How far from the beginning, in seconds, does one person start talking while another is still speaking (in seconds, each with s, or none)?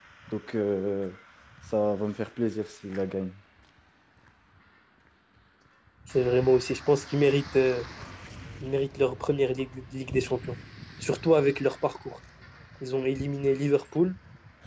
none